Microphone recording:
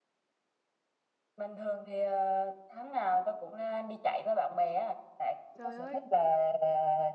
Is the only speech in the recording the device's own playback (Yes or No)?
No